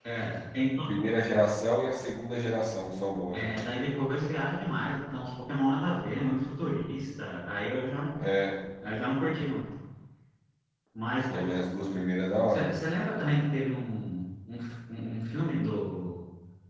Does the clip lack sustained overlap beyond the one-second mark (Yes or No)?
Yes